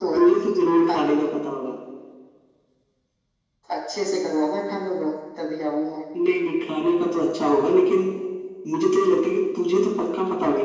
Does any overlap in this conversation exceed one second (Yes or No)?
No